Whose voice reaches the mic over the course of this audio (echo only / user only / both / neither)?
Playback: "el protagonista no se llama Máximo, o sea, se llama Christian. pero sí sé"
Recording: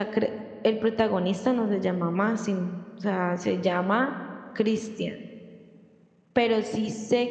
echo only